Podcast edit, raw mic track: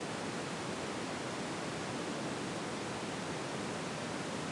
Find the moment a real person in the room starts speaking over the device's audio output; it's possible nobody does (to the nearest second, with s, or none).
none